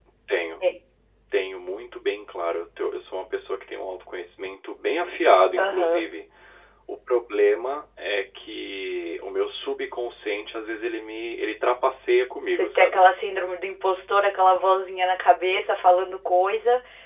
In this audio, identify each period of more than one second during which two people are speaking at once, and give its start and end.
none

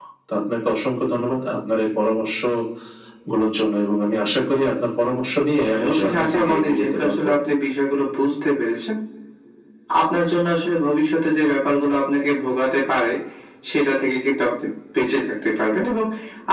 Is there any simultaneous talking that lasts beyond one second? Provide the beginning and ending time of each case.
5.7-7.3

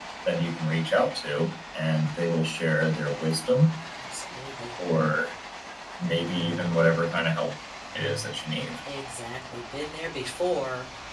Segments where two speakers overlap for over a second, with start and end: none

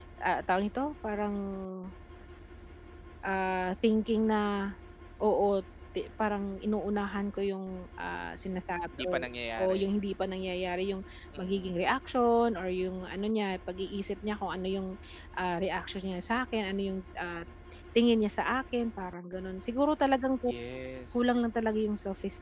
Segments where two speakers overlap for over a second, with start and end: none

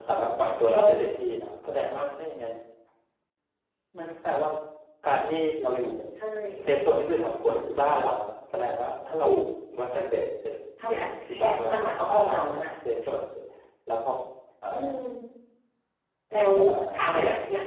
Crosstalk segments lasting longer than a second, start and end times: 10.8-12.5

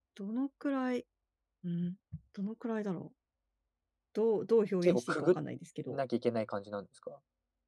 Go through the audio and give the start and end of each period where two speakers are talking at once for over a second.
none

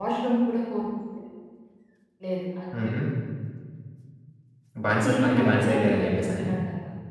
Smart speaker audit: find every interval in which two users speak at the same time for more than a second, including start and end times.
5.0-6.4

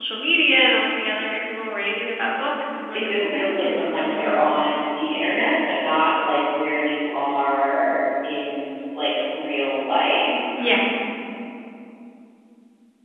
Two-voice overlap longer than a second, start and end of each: 2.9-4.6

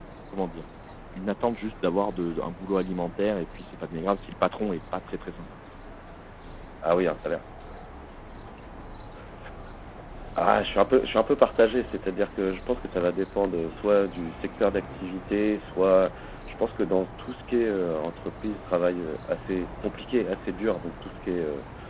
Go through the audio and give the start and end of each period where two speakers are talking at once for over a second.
none

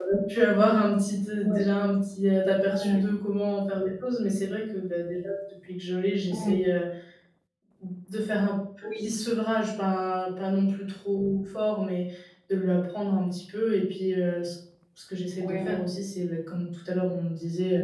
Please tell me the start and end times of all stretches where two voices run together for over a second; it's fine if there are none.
none

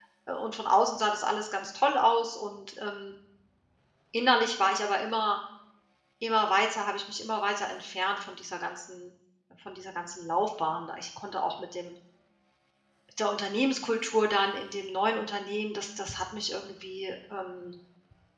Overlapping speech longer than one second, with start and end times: none

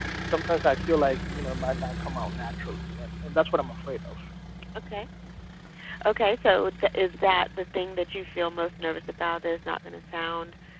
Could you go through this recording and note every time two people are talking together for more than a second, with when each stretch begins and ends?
none

